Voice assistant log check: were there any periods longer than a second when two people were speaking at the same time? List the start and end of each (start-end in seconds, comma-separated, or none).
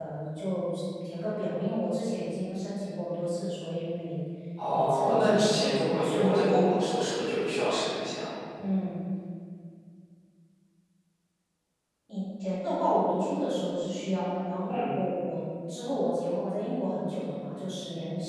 4.7-6.6